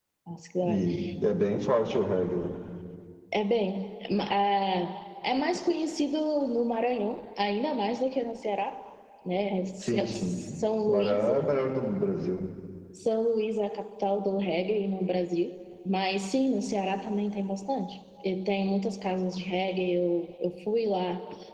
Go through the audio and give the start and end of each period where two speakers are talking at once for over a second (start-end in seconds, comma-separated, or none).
9.8-11.5